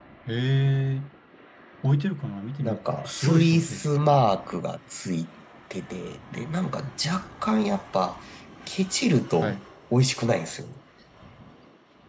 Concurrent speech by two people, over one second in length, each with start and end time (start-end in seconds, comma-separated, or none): 2.6-3.8